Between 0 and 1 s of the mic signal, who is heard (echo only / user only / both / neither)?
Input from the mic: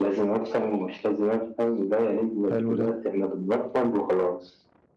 echo only